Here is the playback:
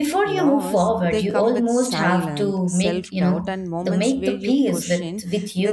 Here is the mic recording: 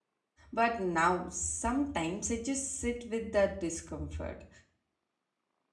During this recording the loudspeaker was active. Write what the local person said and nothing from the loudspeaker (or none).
But now sometimes I just sit with that discomfort.